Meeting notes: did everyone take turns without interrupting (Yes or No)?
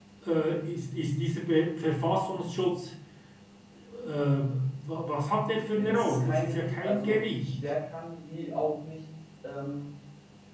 No